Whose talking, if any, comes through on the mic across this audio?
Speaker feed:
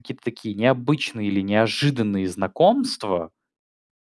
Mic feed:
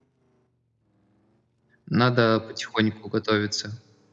user only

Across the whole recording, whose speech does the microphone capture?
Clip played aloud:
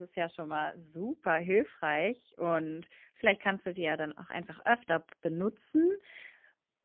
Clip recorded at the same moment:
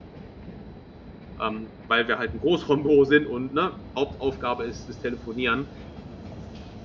user only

